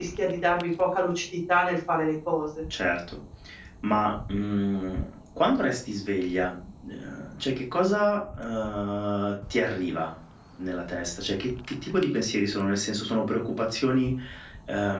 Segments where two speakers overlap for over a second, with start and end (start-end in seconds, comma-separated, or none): none